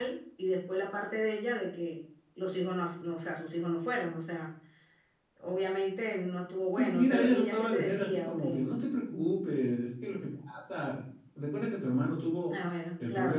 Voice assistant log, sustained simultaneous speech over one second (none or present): present